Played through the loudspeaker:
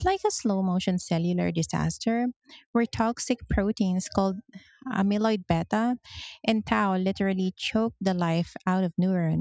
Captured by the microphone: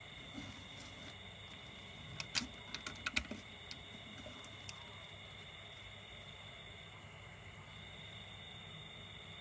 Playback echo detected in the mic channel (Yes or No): No